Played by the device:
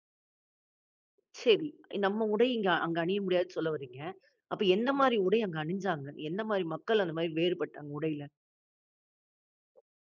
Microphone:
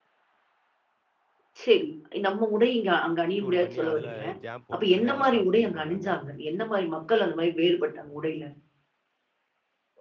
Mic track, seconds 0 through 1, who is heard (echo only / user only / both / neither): neither